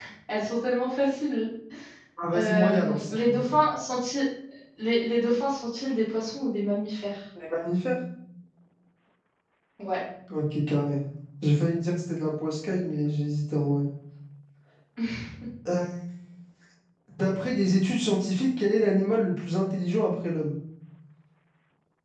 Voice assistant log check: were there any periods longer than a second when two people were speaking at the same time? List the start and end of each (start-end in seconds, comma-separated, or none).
2.4-3.6